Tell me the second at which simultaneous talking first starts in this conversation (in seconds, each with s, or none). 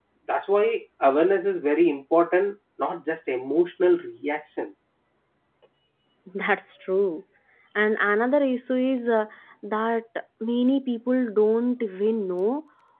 none